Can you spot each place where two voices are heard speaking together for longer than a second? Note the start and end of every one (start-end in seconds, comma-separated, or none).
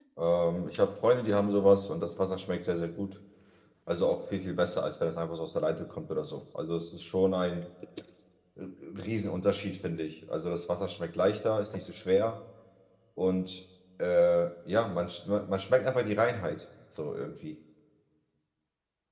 none